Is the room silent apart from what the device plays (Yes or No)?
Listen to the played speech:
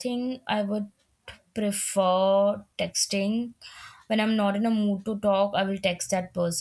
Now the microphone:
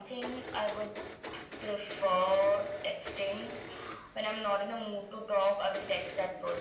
Yes